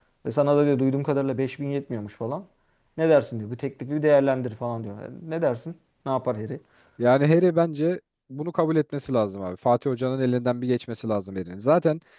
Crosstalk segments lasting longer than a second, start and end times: none

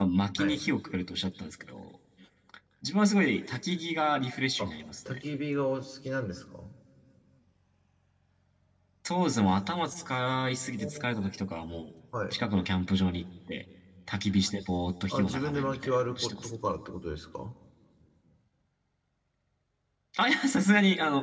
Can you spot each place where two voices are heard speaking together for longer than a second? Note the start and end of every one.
15.1-16.6

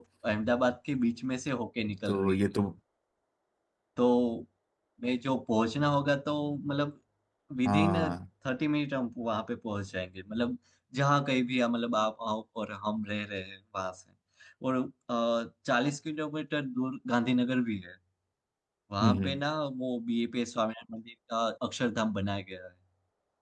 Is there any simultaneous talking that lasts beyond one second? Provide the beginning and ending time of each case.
none

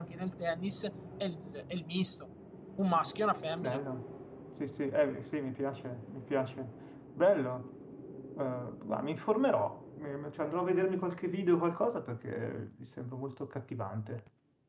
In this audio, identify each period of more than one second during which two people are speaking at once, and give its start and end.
none

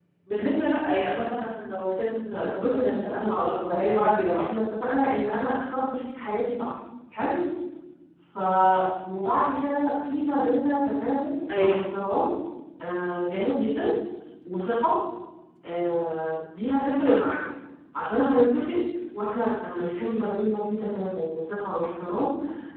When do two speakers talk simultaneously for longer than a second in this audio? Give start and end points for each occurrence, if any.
2.3-4.4

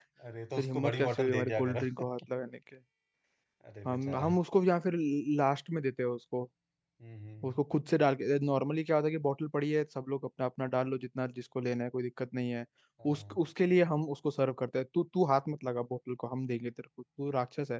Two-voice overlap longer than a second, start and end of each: 0.6-2.0

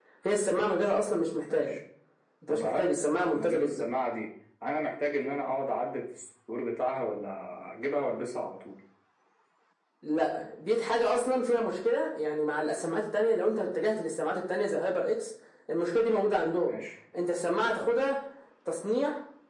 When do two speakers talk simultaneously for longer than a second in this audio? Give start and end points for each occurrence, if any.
2.5-3.8

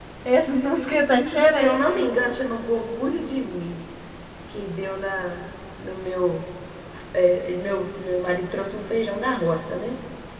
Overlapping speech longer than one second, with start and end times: none

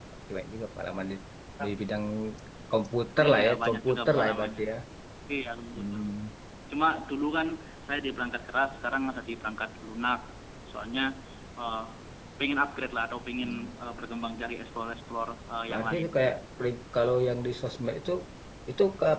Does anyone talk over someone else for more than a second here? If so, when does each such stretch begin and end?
3.2-4.6

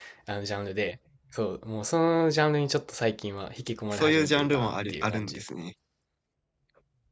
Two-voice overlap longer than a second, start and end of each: 3.9-5.4

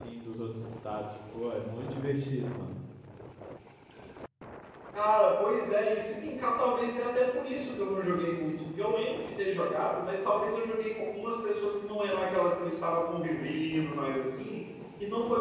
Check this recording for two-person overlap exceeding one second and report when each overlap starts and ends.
none

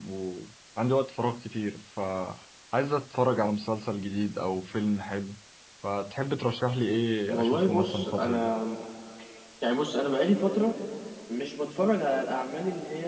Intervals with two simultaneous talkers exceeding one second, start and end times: 7.3-8.5

